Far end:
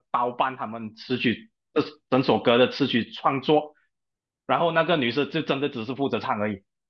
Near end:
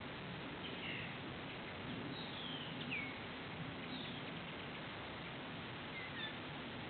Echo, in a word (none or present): none